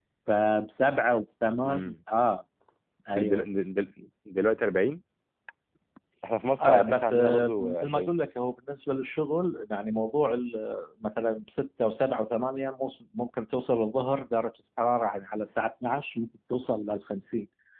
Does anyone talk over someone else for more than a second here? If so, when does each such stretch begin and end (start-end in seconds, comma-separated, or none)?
6.6-8.2